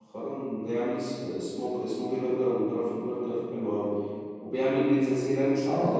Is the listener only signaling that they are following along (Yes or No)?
No